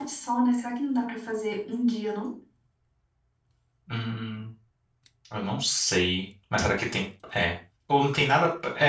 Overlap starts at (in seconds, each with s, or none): none